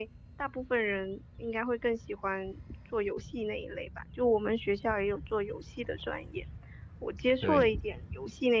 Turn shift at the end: No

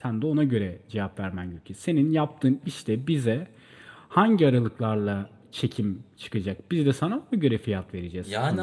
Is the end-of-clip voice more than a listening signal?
Yes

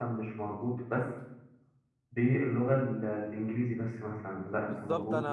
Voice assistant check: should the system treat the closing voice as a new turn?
Yes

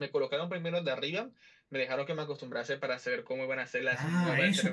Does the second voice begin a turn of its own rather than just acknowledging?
Yes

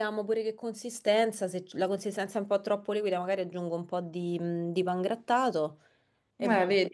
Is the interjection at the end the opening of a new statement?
No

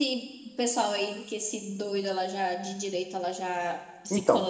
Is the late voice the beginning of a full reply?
Yes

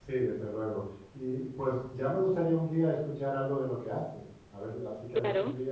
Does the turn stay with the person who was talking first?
No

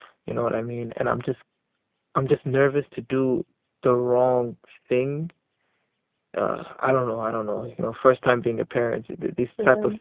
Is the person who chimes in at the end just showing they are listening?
Yes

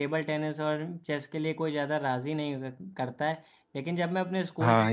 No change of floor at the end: Yes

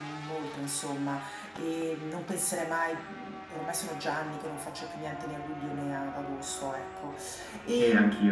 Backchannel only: No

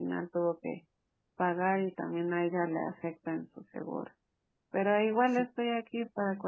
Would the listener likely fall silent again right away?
Yes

